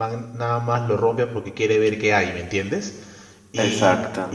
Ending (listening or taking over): listening